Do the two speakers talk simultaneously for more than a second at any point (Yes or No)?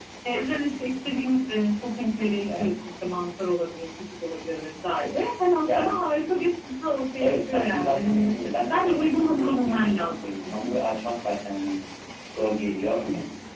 Yes